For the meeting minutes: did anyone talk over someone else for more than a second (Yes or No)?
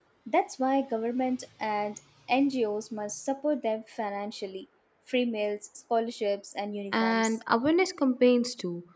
No